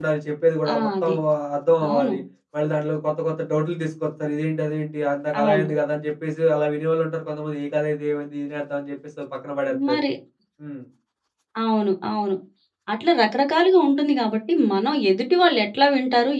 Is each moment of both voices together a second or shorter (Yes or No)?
Yes